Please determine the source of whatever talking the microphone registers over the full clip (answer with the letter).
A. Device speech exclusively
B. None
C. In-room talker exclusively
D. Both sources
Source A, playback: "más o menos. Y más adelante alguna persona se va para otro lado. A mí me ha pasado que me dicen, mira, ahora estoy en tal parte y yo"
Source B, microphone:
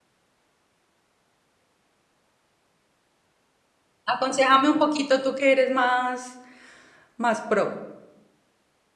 C